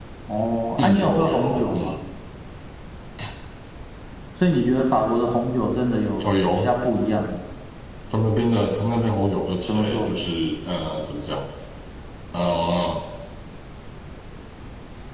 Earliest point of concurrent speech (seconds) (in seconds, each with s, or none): 0.8 s